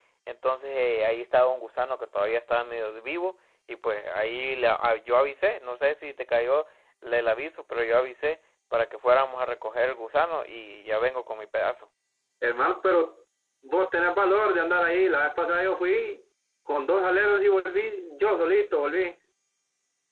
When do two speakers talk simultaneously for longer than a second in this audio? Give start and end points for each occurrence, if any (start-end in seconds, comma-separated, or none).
none